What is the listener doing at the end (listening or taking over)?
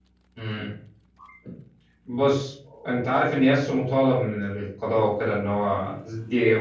listening